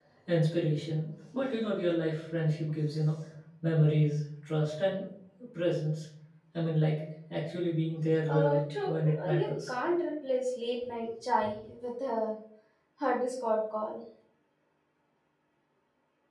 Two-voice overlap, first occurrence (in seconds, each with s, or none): 8.3 s